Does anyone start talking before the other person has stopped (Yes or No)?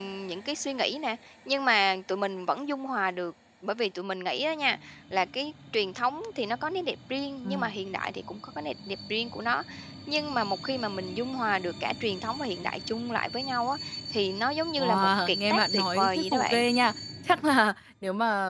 Yes